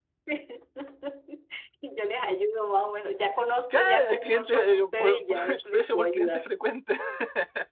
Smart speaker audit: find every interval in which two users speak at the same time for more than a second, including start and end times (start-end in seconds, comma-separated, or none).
3.7-6.4